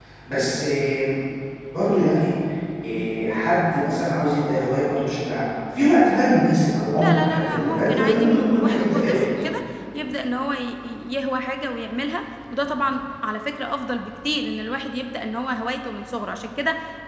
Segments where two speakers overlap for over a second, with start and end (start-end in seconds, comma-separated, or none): 7.0-9.2